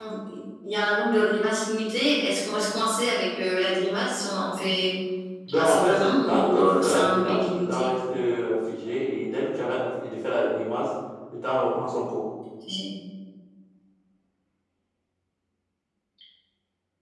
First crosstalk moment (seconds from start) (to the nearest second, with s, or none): 6 s